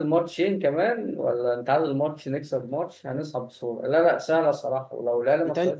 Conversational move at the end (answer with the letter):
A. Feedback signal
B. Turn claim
A